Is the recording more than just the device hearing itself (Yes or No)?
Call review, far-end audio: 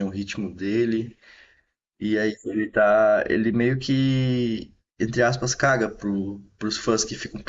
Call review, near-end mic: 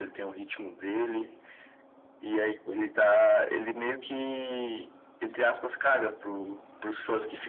No